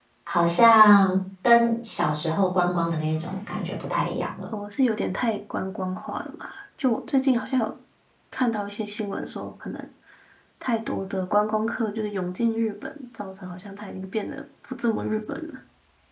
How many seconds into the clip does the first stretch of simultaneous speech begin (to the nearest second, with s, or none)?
none